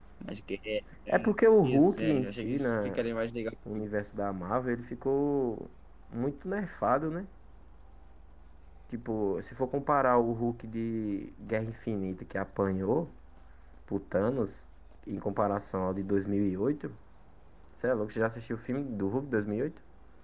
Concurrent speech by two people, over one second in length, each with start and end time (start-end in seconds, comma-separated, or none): 1.6-3.0